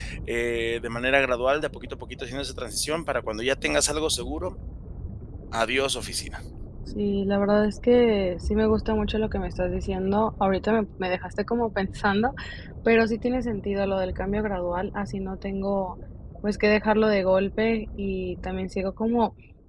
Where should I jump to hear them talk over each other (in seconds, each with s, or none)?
none